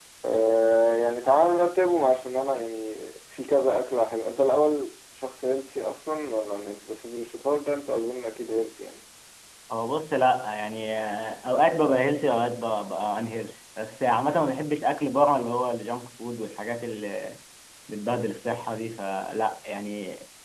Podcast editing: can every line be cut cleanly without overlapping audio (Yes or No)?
Yes